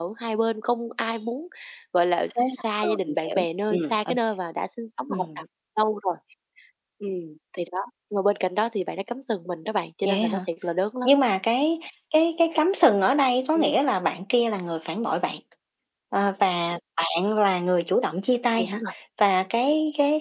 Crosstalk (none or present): present